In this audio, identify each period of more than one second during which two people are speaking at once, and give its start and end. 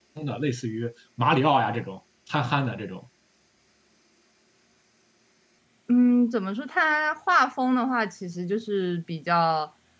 none

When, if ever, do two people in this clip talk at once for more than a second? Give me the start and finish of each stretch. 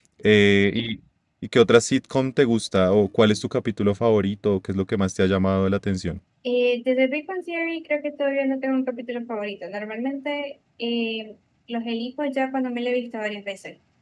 none

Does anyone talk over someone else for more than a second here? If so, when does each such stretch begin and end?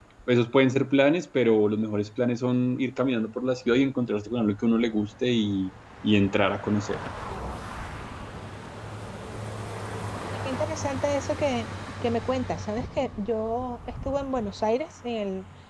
none

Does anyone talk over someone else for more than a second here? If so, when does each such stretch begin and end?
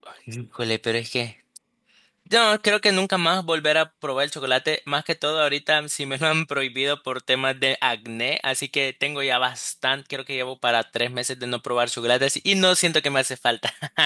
none

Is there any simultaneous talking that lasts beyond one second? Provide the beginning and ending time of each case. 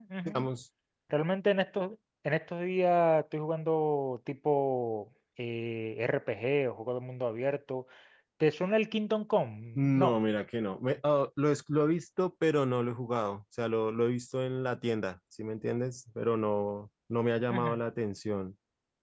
none

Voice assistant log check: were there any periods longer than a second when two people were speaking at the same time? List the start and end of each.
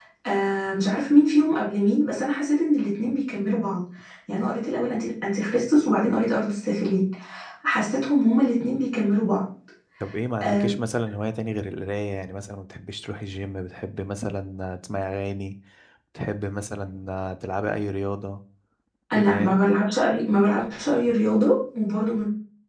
none

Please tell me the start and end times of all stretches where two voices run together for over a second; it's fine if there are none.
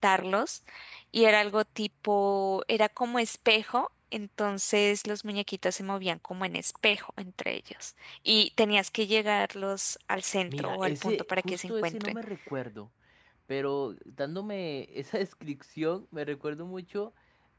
10.5-12.2

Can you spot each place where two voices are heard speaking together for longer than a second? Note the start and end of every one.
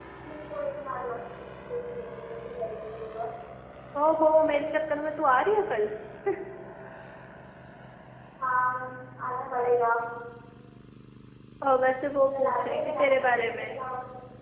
12.3-13.8

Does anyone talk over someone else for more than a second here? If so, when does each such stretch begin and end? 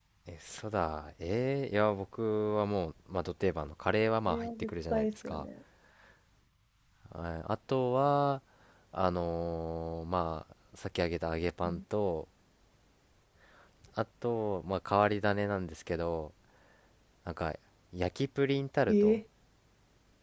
4.3-5.5

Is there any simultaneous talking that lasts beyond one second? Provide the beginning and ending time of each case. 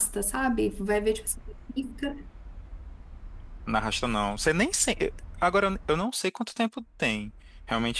none

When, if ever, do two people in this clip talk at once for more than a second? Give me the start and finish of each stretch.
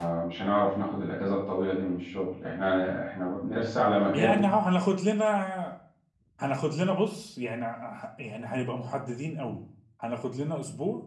none

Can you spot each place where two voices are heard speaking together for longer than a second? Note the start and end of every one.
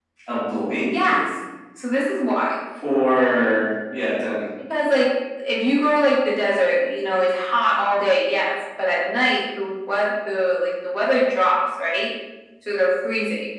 none

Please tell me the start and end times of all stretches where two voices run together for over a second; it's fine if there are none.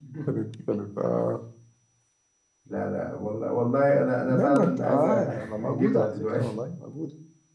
4.3-6.6

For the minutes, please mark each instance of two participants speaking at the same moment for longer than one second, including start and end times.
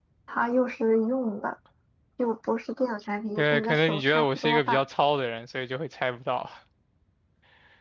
3.4-4.8

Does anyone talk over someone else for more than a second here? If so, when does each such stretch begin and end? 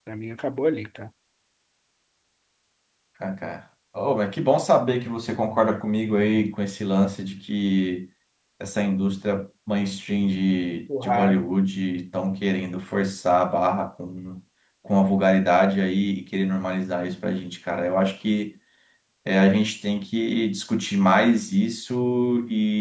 none

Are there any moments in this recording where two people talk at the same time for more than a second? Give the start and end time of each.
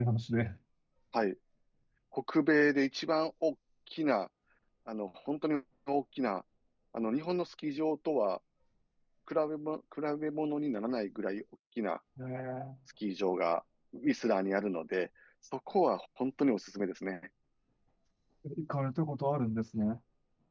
none

